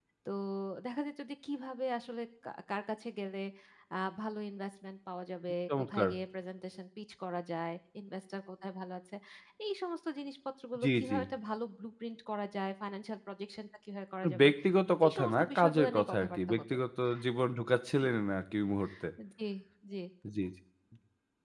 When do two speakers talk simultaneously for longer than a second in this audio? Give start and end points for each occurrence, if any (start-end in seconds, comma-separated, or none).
15.0-16.6